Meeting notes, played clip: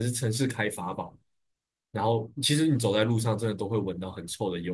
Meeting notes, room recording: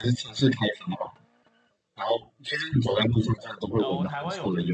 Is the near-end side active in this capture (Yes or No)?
Yes